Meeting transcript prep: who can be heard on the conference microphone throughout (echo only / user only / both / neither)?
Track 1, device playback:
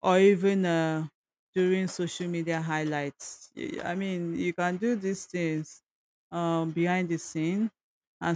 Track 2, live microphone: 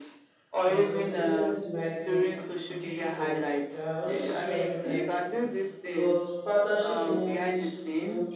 both